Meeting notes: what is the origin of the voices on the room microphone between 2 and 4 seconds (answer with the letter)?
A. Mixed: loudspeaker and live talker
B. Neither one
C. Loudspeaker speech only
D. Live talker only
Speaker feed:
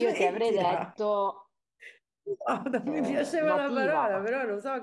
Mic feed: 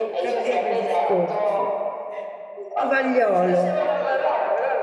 A